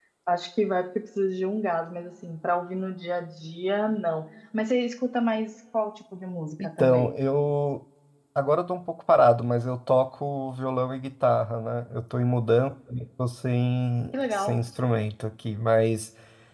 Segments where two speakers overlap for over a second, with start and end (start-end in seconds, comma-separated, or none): none